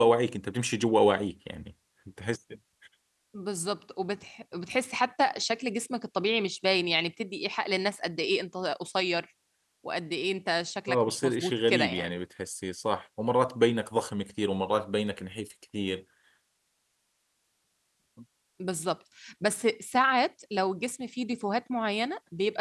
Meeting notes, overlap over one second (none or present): present